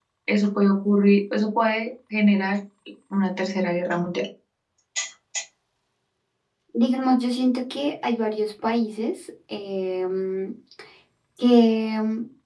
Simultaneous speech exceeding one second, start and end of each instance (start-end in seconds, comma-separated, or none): none